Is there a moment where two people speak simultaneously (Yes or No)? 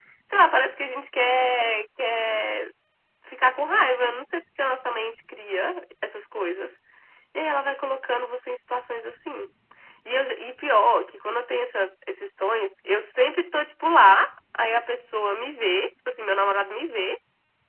No